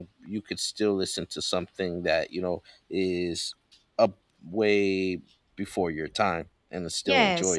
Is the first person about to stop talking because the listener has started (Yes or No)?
Yes